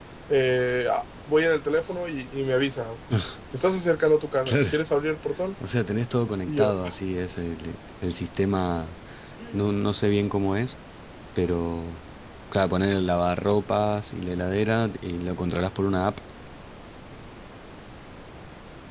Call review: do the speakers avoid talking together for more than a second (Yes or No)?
Yes